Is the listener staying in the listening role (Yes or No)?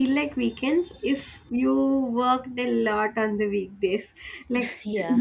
Yes